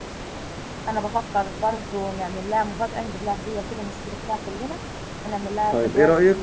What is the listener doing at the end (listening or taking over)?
taking over